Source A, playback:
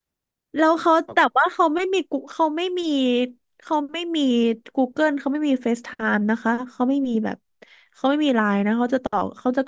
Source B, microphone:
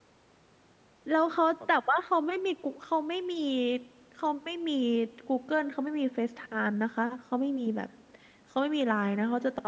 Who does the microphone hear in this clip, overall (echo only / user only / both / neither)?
echo only